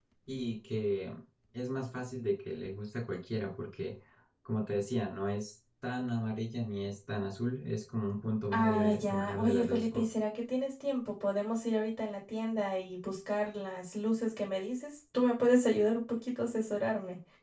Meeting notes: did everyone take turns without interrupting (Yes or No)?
No